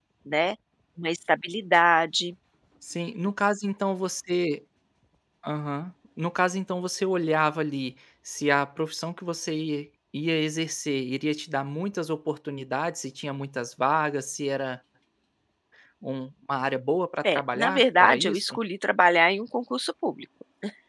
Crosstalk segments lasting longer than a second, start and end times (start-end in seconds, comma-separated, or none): 17.4-18.6